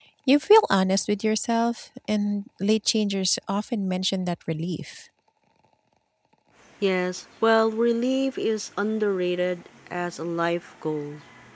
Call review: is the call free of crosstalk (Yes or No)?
Yes